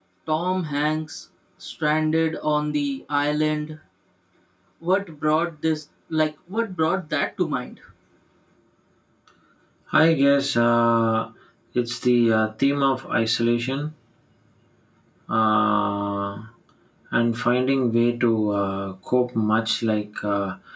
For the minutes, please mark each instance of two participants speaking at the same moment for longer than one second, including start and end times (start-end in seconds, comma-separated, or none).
none